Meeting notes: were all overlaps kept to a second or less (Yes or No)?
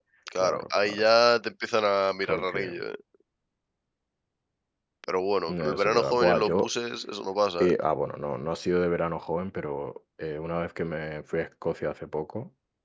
No